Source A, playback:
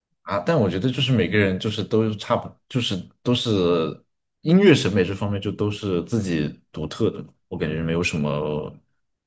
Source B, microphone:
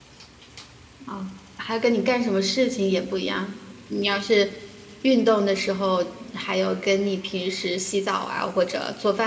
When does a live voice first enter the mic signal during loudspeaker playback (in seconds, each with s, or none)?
1.1 s